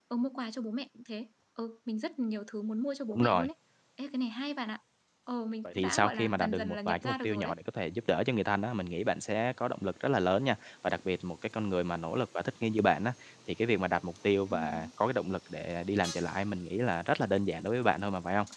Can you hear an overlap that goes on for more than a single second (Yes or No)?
Yes